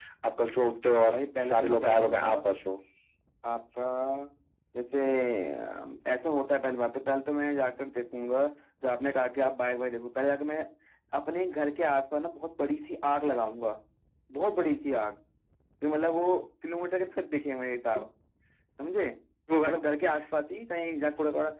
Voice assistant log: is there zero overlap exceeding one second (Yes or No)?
No